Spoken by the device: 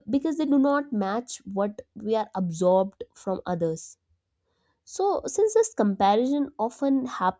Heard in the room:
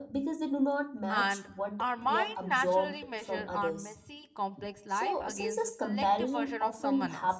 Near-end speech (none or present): present